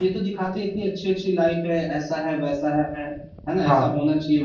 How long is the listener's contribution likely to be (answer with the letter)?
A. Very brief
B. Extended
A